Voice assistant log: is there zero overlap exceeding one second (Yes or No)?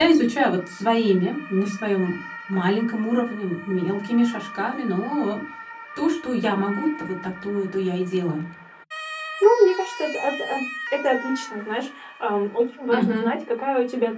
Yes